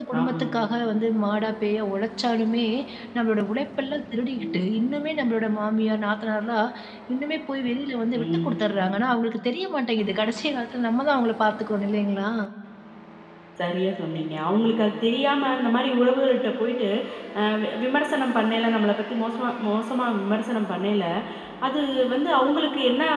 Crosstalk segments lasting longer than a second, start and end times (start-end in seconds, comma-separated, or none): none